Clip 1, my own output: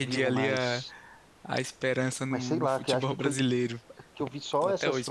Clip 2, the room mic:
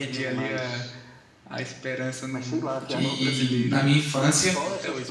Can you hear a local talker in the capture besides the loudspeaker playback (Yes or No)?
Yes